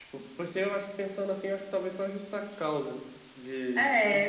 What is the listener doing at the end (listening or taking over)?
taking over